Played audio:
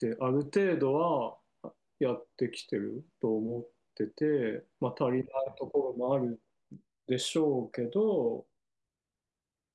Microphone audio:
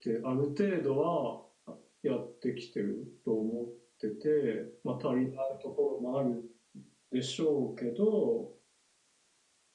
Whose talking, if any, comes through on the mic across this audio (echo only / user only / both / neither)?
echo only